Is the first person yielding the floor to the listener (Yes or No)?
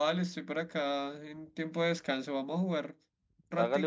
Yes